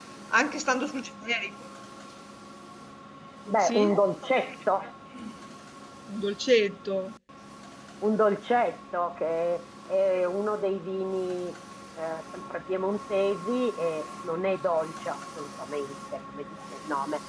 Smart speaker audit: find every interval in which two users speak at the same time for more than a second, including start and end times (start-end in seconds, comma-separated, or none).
none